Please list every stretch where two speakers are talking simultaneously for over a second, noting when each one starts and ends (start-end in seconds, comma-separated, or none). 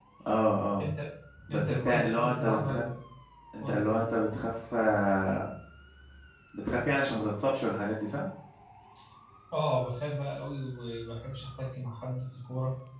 1.5-2.8